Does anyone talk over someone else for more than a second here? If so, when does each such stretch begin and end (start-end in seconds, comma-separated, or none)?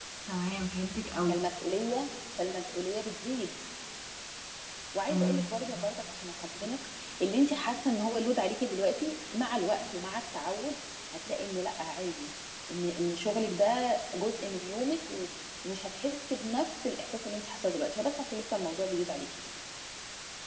none